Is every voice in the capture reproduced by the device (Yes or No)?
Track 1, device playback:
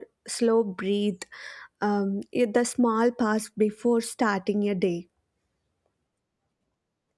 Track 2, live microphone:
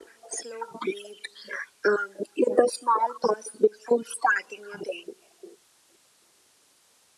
Yes